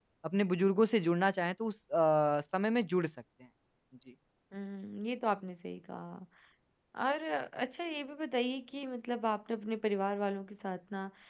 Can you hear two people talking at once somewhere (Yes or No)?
No